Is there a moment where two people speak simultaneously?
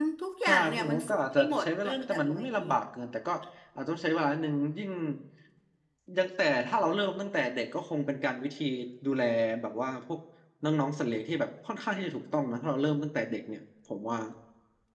Yes, from 0.5 s

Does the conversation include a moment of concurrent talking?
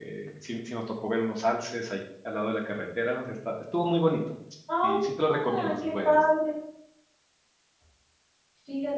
Yes, from 4.8 s

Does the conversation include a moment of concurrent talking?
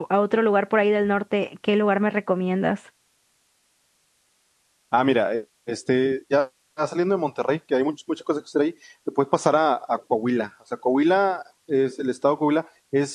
No

